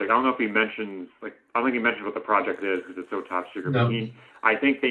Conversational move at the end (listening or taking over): listening